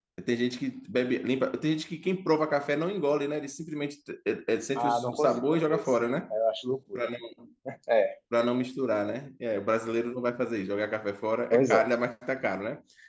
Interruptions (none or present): present